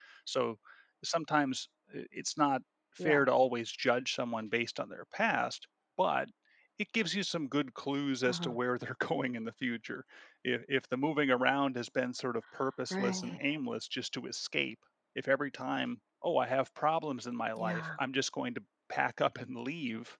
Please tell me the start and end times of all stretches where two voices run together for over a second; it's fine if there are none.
none

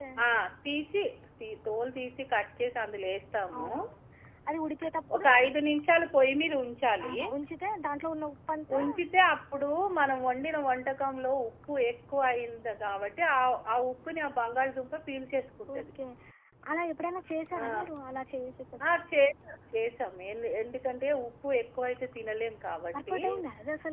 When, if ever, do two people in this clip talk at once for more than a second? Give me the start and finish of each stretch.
none

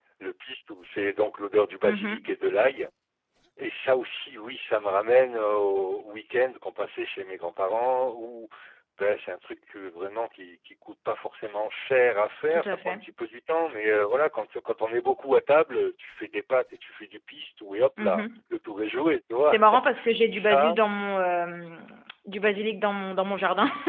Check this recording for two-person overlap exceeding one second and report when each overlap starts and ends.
none

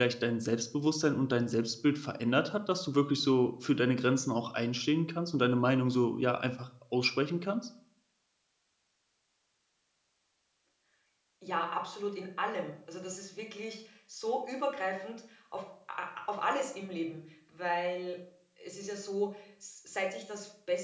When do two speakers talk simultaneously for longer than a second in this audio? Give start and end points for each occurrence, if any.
none

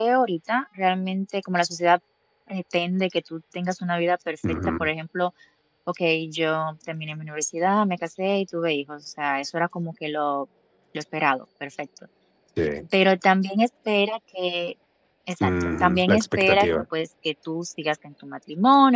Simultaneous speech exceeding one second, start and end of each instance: 15.4-16.7

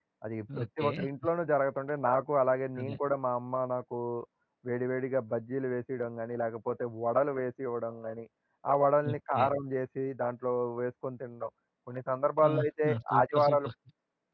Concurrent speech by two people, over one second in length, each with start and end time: 12.5-13.7

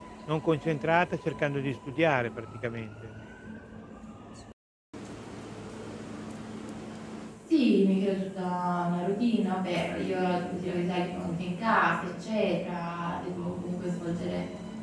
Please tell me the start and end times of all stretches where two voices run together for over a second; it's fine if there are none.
none

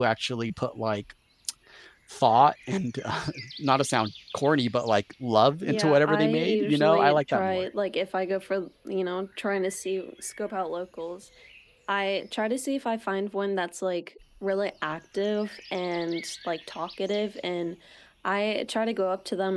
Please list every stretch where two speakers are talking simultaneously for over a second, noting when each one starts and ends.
5.6-7.7

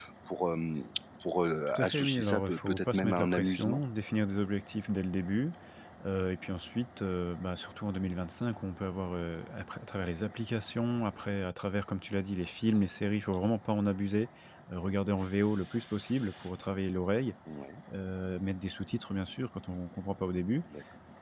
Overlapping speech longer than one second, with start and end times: 1.7-3.8

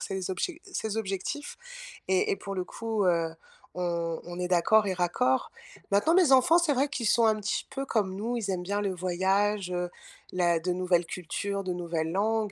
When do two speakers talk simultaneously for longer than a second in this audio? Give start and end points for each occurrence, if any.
none

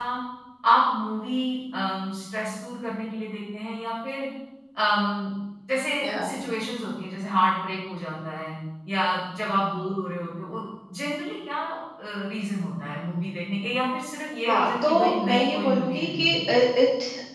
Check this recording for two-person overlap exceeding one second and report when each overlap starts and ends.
14.5-16.5

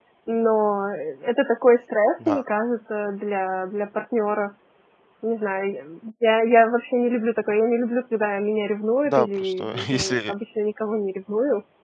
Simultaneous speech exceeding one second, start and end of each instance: 9.1-10.3

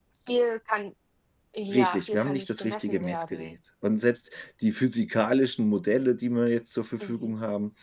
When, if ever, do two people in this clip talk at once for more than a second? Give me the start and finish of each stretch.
1.7-3.6

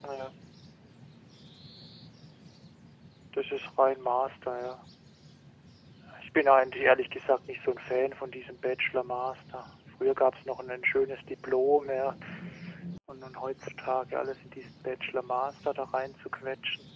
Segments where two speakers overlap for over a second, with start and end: none

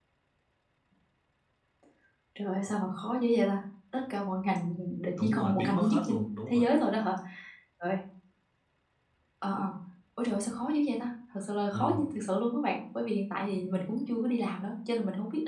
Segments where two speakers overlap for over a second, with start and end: 5.2-6.7

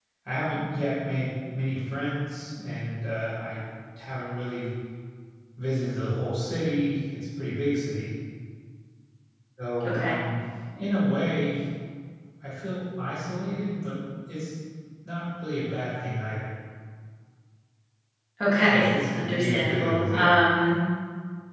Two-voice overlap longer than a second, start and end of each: 18.7-20.4

